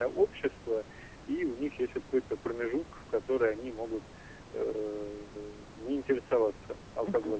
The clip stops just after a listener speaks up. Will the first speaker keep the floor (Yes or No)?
No